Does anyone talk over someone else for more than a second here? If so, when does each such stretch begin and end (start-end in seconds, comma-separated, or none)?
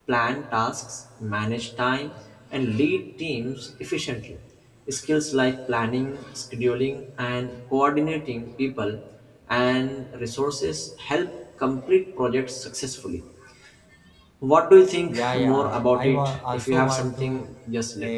15.2-17.2